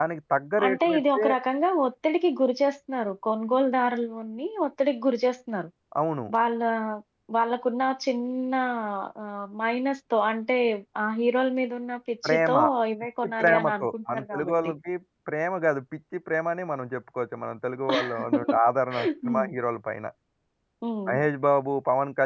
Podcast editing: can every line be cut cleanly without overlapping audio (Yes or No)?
No